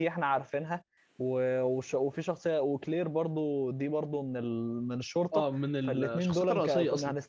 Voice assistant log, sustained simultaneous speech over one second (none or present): present